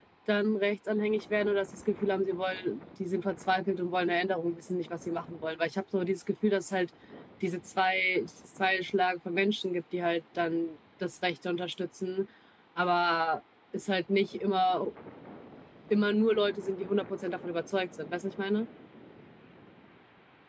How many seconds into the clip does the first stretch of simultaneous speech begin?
none

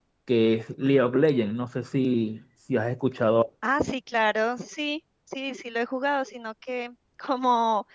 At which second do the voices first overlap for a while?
none

